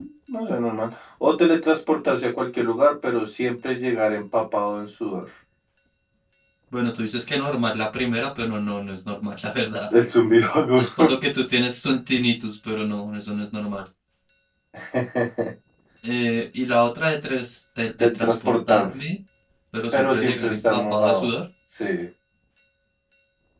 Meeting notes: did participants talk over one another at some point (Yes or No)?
Yes